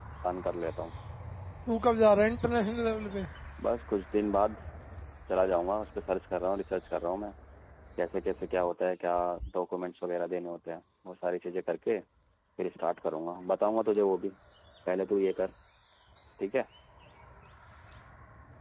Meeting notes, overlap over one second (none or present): none